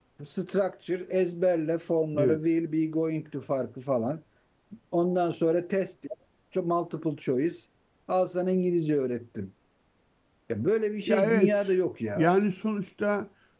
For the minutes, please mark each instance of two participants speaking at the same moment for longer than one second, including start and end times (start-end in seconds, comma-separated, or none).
none